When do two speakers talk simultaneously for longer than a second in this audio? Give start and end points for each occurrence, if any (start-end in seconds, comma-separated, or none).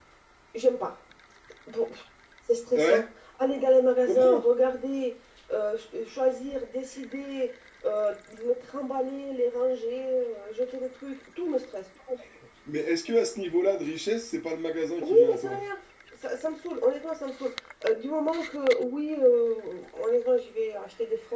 none